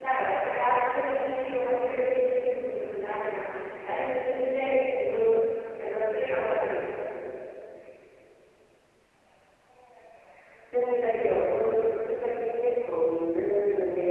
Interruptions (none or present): none